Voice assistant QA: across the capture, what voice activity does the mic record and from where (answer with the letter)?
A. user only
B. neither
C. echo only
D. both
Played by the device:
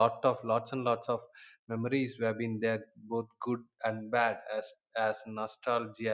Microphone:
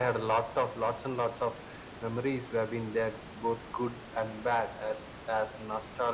C